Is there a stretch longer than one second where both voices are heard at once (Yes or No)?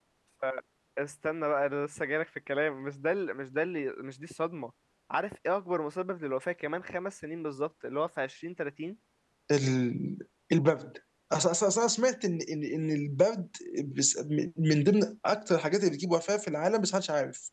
No